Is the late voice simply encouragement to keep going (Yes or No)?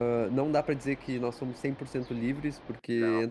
Yes